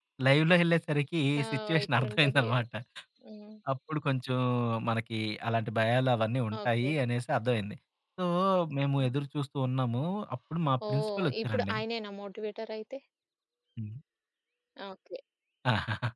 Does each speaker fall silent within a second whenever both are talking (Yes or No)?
No